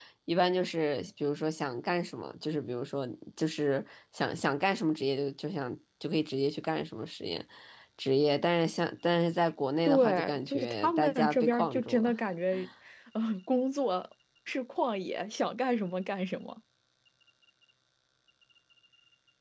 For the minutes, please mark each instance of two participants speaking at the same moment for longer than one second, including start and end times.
9.9-12.2

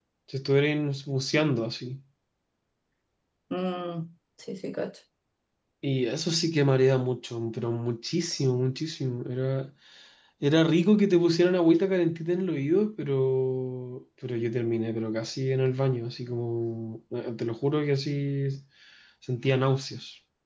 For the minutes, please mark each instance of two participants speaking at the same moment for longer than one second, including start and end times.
none

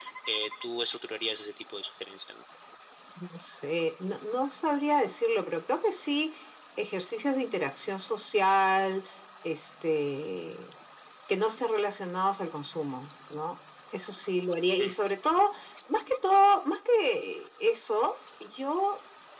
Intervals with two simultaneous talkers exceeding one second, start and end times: none

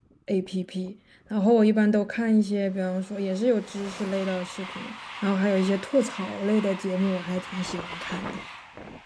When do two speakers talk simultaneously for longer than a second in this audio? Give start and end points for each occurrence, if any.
none

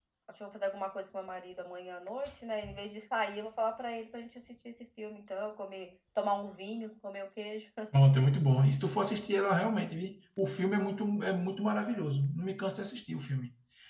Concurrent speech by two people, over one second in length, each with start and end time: none

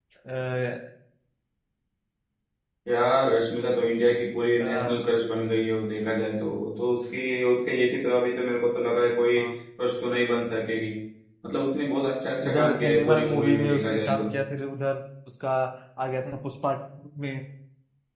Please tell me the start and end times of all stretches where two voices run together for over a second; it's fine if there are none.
12.5-14.3

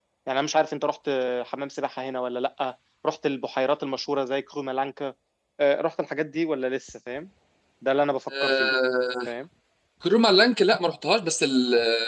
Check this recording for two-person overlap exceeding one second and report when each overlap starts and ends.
none

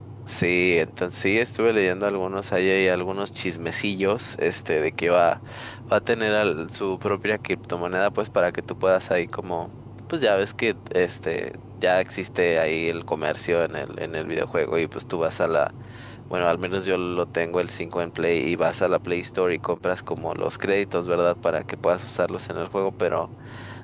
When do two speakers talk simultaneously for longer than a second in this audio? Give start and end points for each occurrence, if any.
none

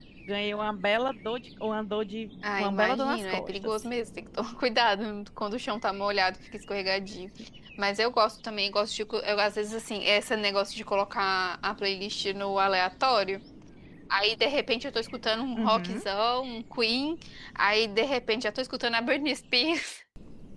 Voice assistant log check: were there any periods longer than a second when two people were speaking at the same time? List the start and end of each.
2.6-3.8

